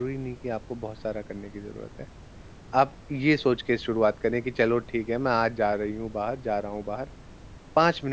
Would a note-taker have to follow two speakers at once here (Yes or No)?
No